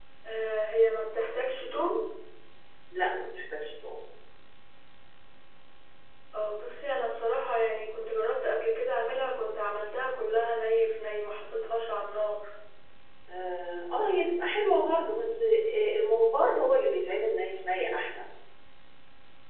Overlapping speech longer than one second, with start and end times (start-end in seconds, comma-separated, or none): none